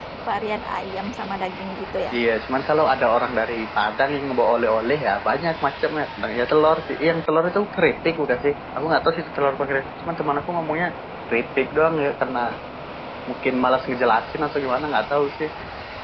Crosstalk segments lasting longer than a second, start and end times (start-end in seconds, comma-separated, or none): none